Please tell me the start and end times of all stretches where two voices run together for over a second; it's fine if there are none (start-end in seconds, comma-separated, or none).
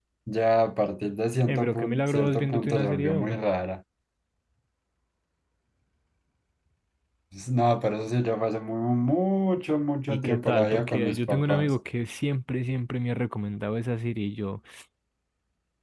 1.4-3.4, 10.1-11.7